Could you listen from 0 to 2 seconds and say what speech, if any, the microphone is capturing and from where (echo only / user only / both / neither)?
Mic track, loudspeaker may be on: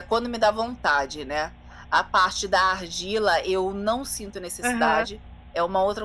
echo only